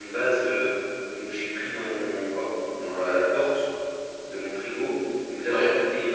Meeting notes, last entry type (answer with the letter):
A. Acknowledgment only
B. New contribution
A